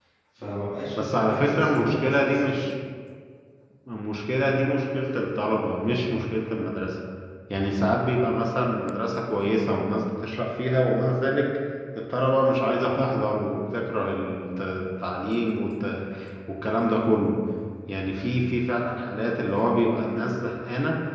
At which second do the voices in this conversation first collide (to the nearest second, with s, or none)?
1 s